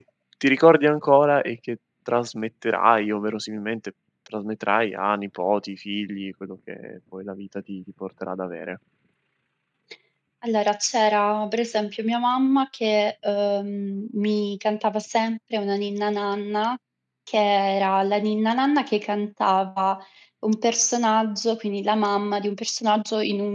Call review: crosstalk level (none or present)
none